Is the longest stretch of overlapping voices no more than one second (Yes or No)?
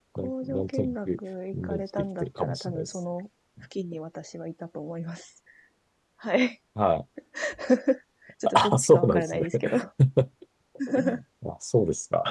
No